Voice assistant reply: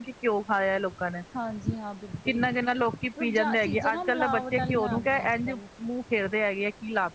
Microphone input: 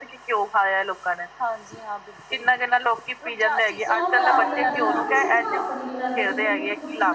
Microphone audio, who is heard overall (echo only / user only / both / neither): both